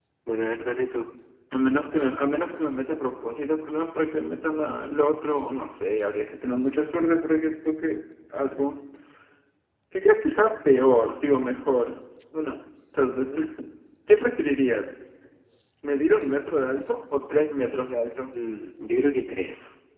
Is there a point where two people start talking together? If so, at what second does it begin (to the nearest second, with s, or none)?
none